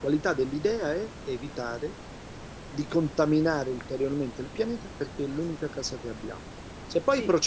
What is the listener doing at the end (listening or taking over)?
listening